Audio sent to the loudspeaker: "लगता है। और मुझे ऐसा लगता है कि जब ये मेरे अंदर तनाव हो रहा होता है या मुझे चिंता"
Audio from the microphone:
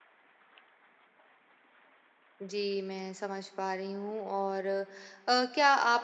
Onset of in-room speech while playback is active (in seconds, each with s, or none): 2.4 s